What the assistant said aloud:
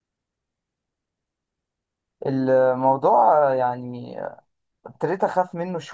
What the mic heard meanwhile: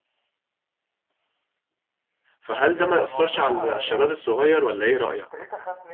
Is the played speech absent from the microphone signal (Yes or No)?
No